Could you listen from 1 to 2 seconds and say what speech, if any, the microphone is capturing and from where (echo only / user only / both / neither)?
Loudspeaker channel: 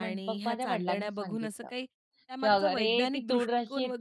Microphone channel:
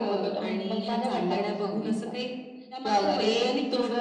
echo only